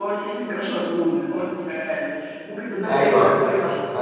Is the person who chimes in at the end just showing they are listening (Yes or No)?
No